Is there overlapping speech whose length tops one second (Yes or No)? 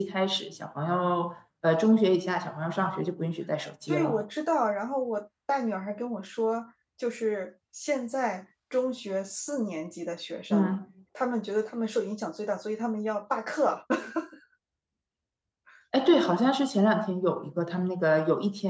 No